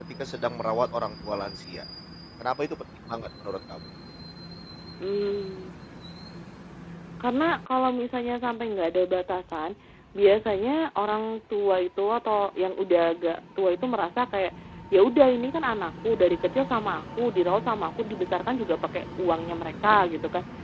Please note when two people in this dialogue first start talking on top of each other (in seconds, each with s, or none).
none